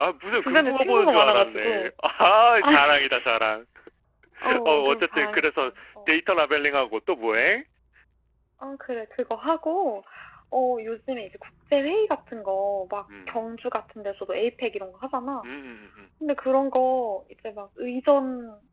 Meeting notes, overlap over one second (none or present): present